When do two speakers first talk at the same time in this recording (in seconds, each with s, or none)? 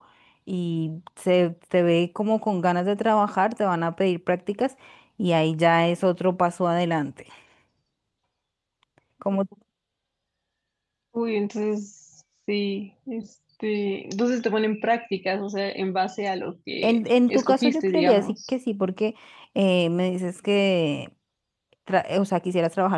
16.8 s